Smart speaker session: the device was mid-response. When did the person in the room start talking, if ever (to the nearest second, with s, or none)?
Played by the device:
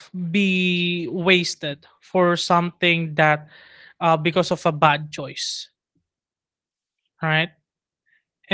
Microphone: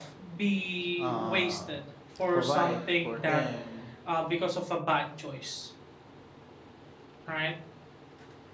1 s